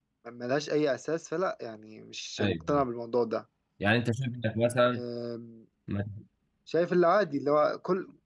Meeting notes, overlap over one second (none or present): none